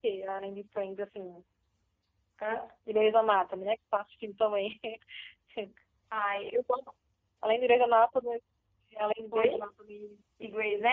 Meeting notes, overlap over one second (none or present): none